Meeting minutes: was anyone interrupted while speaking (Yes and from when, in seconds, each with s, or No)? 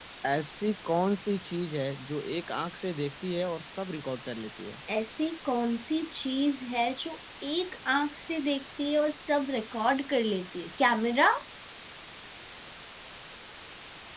No